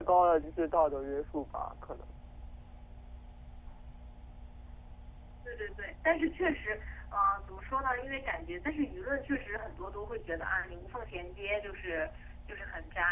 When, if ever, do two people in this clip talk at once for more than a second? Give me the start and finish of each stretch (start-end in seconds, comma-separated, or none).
none